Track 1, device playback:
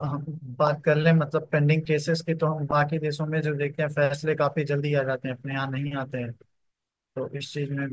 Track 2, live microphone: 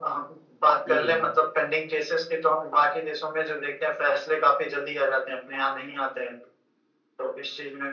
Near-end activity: present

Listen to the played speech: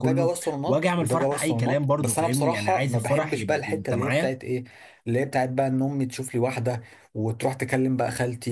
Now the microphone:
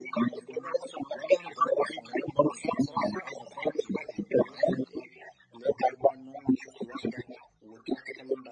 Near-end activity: none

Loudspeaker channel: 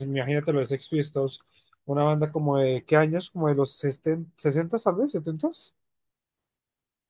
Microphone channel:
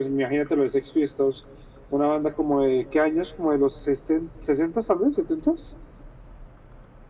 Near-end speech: none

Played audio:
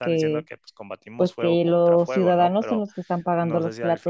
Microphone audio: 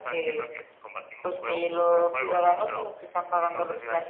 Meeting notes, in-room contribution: none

